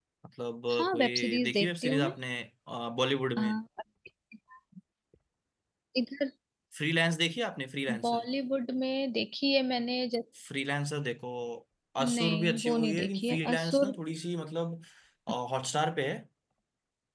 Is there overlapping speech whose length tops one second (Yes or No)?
Yes